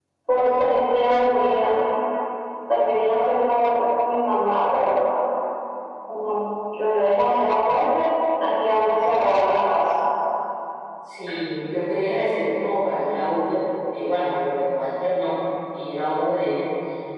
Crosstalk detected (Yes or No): No